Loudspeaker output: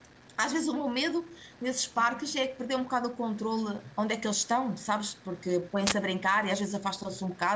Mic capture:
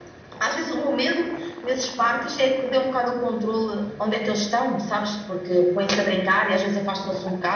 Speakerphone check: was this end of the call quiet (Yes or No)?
Yes